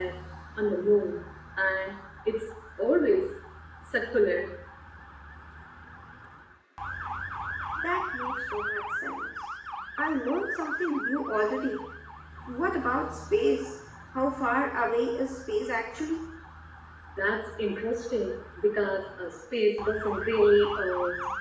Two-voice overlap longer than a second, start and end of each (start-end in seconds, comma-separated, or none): none